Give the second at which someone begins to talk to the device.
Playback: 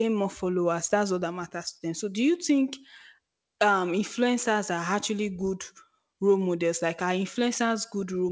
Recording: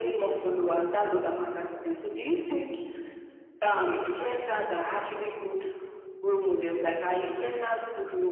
none

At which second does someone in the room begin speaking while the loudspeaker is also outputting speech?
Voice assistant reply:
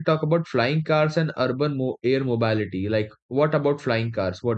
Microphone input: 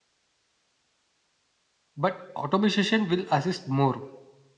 2.0 s

